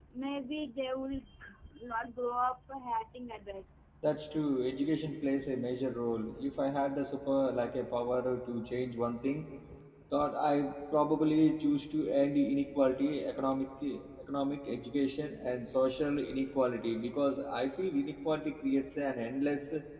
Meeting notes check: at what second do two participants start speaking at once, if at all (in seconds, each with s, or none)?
none